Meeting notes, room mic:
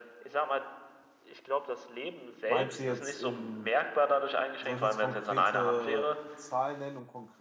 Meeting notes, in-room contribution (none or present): present